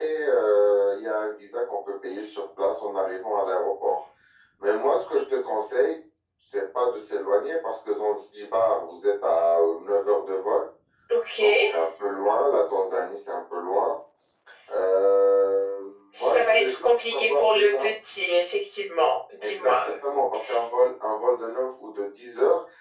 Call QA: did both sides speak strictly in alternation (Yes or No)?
No